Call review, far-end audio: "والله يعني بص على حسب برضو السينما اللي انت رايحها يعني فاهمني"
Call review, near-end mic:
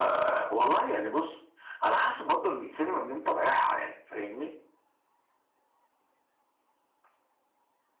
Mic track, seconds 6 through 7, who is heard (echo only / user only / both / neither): neither